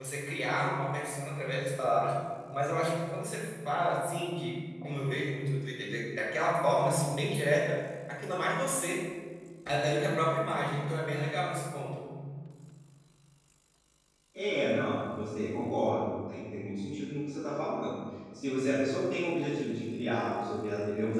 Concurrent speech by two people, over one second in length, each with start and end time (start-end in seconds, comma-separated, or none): none